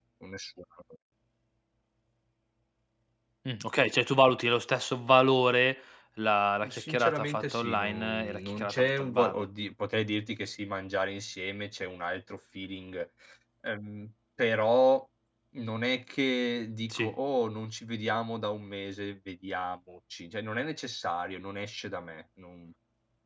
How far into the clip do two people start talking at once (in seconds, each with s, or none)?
6.6 s